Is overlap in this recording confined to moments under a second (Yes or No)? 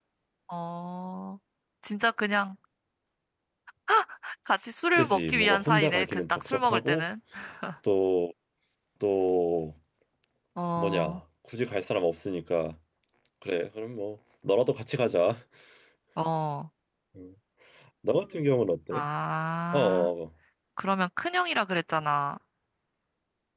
No